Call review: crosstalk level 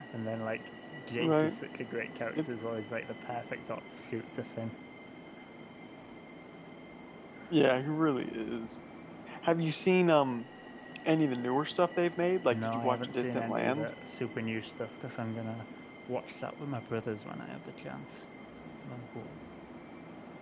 present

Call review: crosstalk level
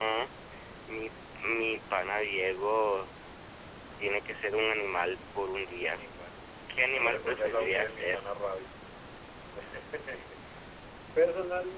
present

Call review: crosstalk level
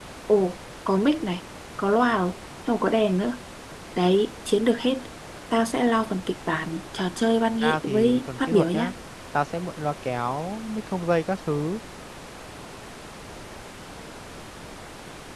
present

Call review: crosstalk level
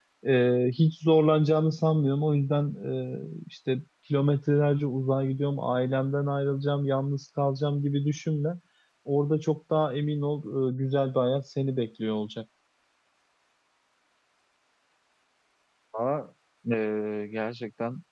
none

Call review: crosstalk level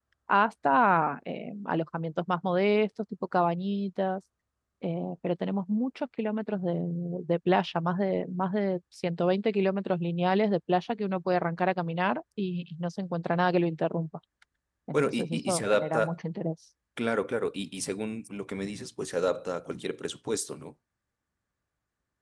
present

